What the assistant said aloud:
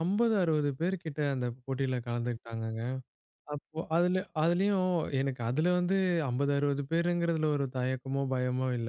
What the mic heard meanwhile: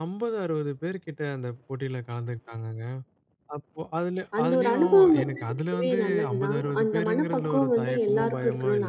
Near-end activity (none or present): present